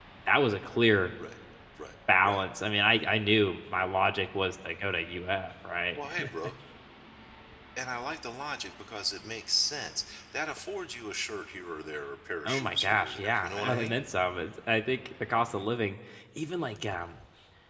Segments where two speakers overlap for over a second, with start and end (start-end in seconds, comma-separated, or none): 12.4-14.0